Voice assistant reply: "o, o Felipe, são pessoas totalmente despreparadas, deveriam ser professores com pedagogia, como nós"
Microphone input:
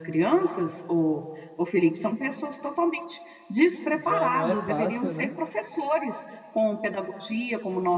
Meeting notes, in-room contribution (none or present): present